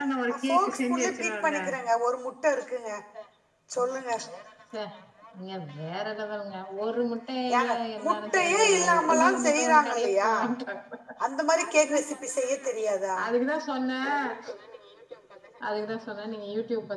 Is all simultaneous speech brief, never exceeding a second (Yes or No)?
No